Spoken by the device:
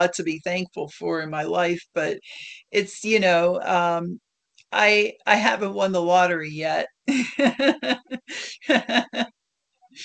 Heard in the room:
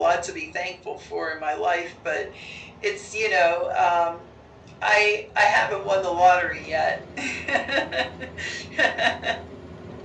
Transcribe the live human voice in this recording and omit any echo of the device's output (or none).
none